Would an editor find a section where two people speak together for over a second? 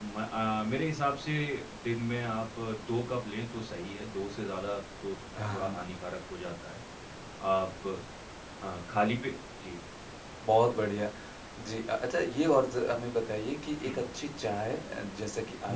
No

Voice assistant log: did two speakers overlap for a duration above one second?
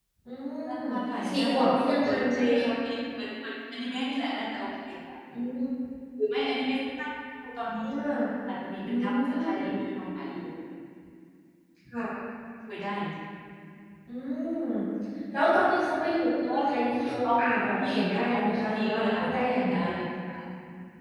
Yes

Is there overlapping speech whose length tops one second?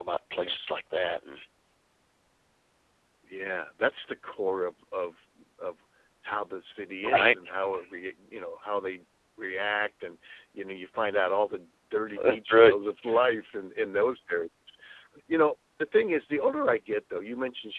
No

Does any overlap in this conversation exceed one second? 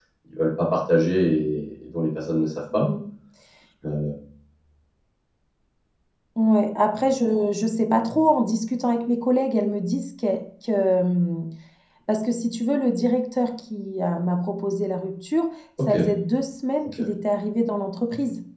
No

